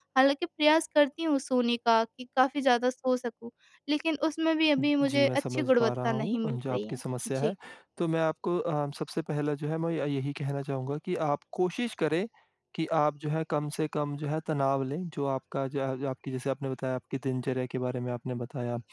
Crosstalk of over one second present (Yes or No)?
Yes